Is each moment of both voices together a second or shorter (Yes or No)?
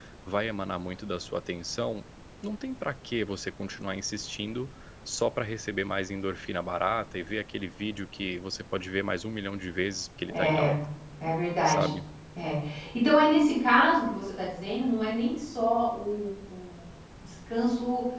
Yes